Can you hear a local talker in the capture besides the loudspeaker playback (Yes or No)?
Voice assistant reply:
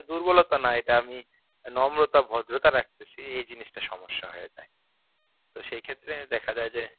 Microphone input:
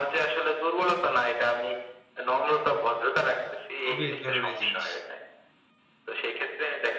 Yes